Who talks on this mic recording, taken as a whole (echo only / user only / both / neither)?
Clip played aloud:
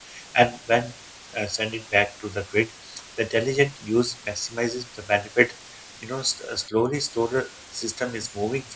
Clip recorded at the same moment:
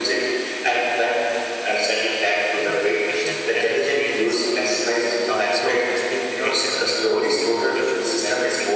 both